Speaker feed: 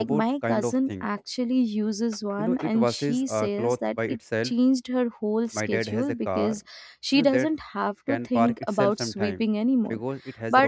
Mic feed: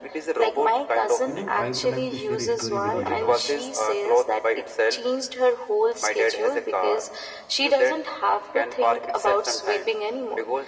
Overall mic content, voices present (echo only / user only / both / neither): both